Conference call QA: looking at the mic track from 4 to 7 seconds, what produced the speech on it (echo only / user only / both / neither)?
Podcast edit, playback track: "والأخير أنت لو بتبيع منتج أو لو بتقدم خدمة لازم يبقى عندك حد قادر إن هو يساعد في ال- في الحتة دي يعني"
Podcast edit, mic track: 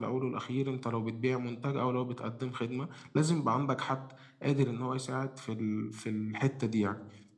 echo only